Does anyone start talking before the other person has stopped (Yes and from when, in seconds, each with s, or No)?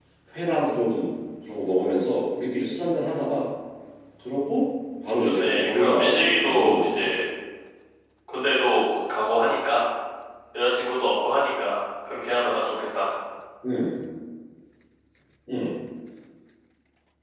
Yes, from 5.2 s